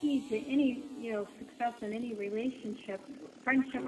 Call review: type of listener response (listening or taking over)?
listening